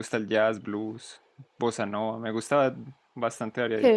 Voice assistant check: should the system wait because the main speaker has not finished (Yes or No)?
No